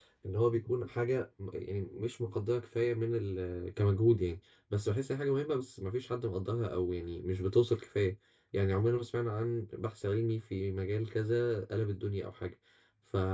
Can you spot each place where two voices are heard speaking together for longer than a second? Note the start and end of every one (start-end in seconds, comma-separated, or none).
none